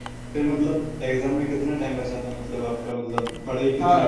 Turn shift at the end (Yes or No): Yes